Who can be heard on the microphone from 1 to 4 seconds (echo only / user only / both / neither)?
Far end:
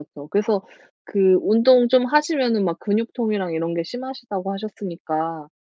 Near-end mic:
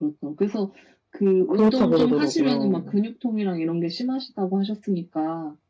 both